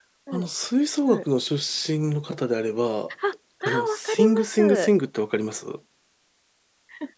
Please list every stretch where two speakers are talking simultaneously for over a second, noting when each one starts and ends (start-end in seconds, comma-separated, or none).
3.6-4.9